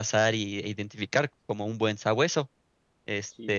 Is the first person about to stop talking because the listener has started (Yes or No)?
No